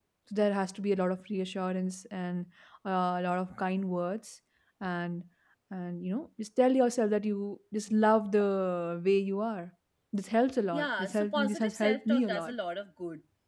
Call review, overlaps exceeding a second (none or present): present